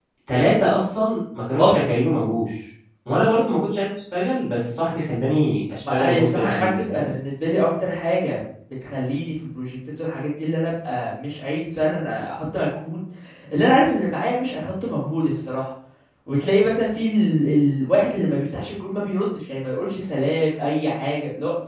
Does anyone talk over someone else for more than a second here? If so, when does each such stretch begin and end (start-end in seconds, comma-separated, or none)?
5.9-7.1